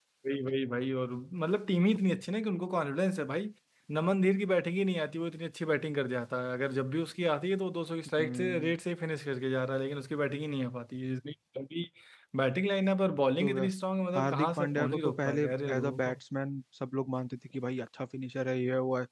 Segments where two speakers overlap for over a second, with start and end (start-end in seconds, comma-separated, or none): 14.2-16.1